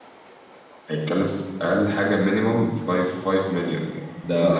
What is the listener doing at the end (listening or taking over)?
taking over